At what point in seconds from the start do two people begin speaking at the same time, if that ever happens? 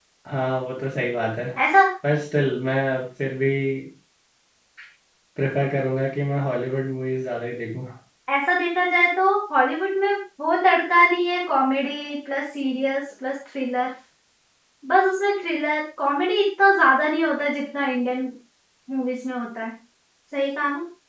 none

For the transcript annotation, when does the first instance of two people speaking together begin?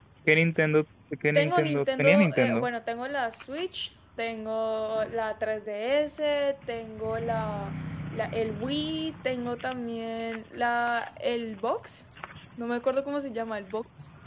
1.4 s

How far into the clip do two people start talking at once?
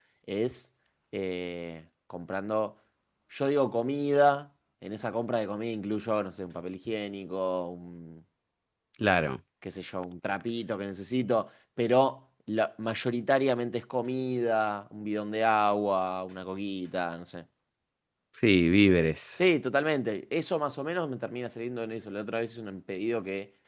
none

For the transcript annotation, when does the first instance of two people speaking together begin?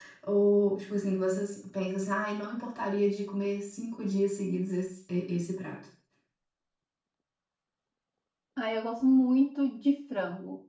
none

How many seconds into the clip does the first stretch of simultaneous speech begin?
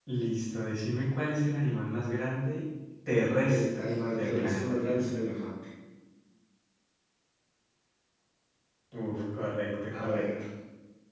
3.5 s

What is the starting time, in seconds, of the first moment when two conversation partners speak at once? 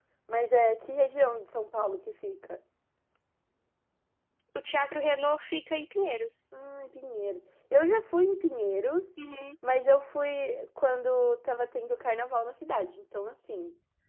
none

